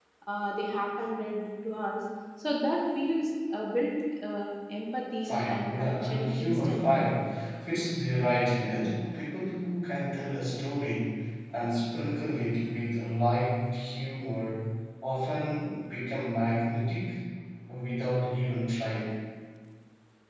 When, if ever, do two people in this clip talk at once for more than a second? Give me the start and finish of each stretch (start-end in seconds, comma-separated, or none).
5.2-7.1